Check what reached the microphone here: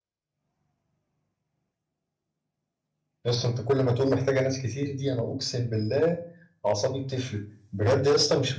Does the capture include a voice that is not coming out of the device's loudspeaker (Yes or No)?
Yes